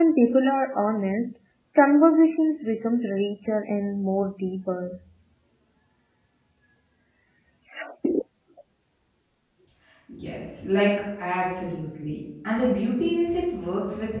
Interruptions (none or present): none